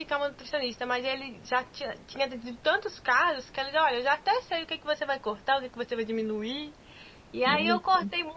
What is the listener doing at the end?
listening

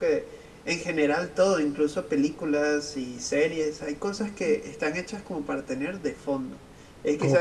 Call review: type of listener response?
listening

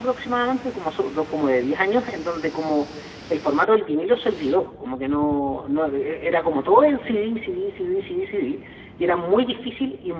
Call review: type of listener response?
listening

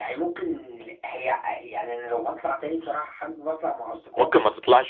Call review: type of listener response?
taking over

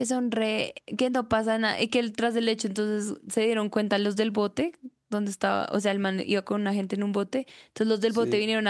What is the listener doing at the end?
listening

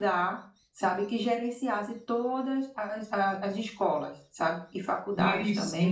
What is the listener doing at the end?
listening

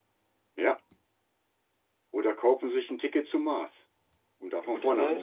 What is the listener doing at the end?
taking over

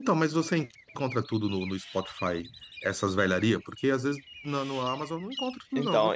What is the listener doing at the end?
taking over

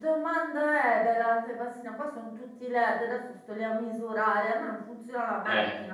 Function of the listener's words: taking over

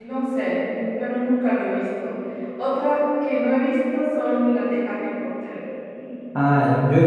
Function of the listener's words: taking over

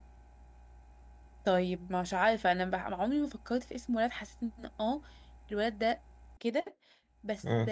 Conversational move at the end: listening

